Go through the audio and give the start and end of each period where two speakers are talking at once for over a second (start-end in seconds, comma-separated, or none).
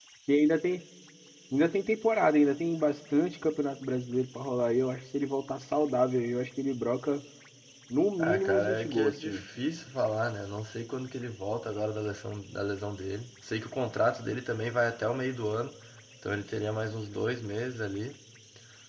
8.2-9.4